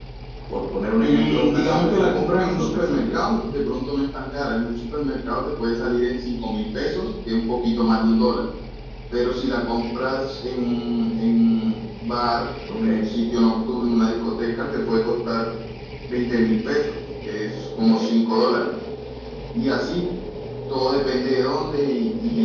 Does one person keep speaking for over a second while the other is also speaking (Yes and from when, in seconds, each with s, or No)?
Yes, from 1.0 s